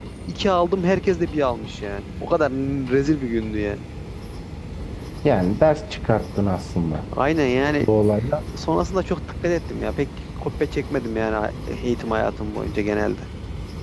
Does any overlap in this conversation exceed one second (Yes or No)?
No